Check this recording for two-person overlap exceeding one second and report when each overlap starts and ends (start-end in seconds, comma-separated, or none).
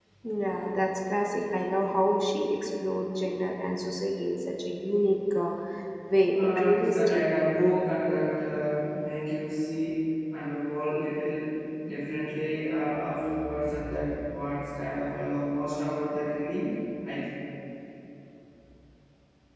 6.3-7.7